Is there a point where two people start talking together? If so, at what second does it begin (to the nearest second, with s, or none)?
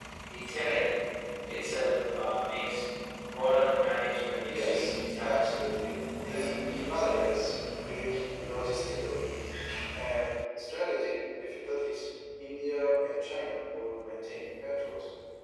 4 s